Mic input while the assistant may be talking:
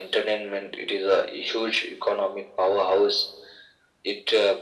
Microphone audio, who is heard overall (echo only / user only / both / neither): echo only